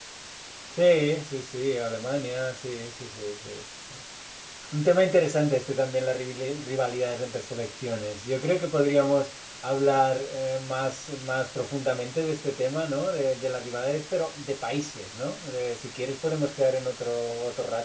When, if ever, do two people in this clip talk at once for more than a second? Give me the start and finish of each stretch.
none

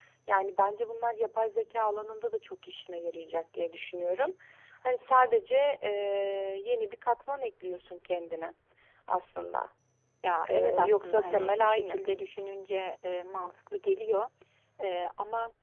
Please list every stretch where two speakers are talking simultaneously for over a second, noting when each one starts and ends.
10.5-12.0

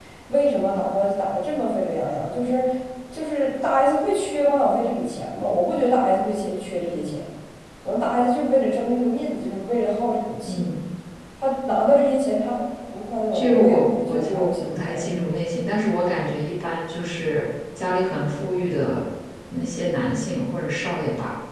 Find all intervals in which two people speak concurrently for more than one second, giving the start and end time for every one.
13.3-15.1

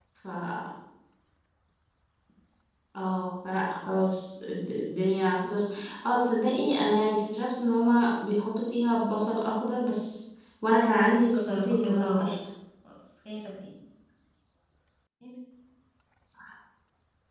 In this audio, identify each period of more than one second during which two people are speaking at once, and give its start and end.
10.8-12.3

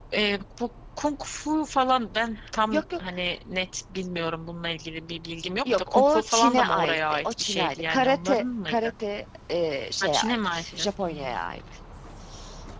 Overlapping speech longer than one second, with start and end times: 5.7-8.8, 10.0-11.3

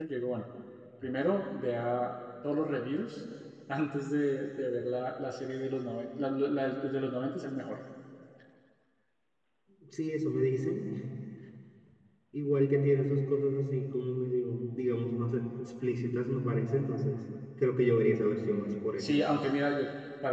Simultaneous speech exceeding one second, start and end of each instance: none

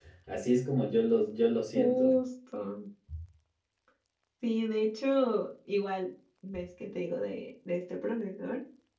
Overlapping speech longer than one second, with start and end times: none

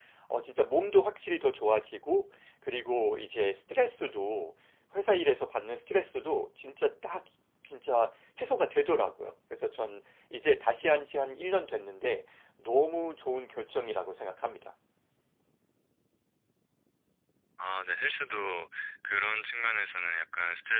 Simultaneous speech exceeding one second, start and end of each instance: none

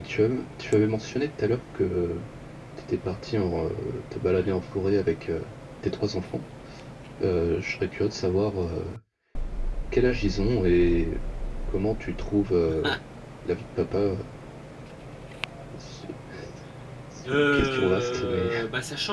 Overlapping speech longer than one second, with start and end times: 17.3-18.5

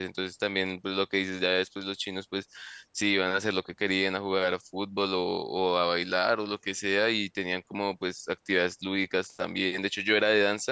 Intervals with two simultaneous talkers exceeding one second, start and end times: none

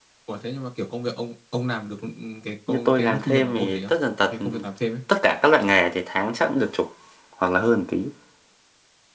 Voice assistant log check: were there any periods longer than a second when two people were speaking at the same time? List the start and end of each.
2.7-3.9

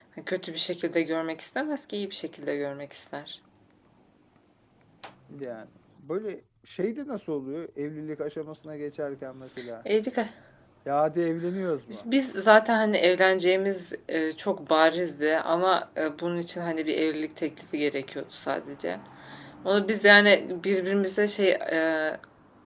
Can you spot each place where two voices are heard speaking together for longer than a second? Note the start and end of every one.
none

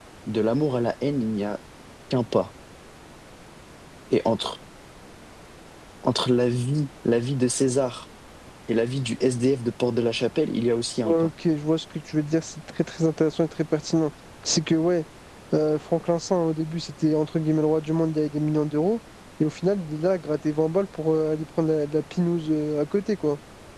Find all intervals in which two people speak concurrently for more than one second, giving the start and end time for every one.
none

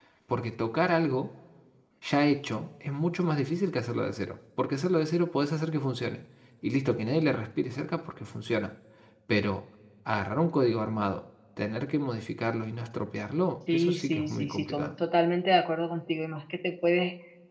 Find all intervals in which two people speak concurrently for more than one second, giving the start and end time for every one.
13.7-14.9

